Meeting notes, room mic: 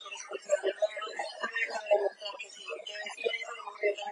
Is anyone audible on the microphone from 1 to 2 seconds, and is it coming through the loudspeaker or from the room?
echo only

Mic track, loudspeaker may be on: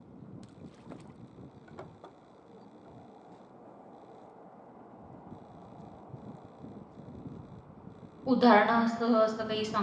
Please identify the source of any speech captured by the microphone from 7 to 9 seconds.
user only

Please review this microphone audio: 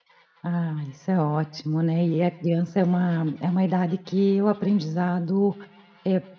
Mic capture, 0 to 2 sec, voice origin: user only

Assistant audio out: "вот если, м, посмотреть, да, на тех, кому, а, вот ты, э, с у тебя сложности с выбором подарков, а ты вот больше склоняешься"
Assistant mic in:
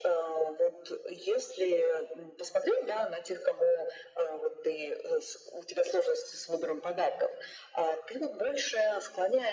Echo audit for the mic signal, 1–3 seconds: echo only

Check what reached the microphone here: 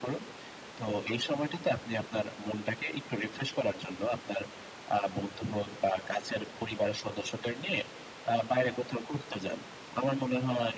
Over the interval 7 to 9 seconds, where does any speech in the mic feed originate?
echo only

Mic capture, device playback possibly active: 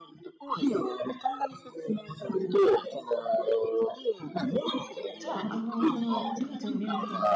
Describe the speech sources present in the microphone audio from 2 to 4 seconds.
echo only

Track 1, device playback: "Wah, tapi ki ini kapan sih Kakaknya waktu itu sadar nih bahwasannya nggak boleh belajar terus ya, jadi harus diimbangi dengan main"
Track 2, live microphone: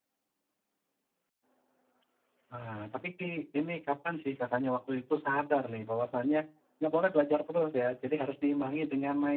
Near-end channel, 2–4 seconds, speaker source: echo only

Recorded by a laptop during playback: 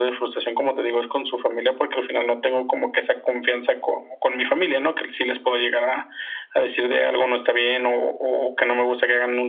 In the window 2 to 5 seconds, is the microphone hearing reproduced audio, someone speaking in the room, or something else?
echo only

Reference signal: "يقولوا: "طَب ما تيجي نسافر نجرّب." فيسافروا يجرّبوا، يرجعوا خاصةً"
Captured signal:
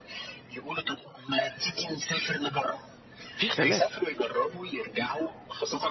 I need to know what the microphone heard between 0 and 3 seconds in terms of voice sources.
echo only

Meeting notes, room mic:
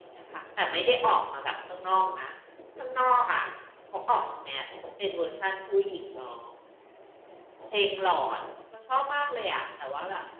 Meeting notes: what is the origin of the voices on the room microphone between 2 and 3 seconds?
echo only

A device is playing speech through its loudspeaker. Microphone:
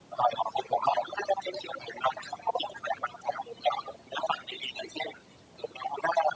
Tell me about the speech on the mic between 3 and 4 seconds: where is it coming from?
echo only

